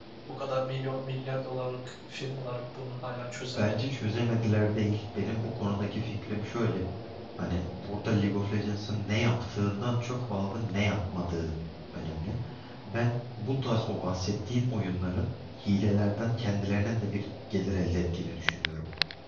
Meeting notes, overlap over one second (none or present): none